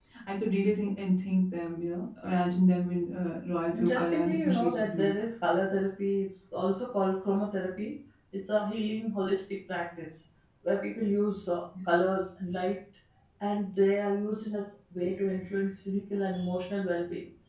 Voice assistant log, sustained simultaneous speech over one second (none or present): present